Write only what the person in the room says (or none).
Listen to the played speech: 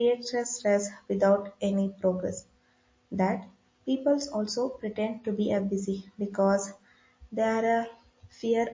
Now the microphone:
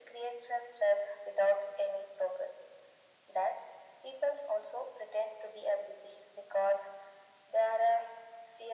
none